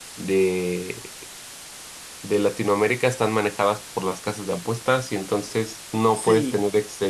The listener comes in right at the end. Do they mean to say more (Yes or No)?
No